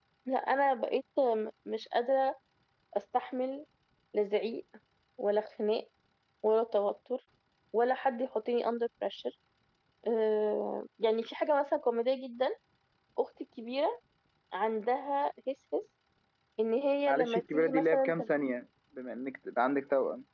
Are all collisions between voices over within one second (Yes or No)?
No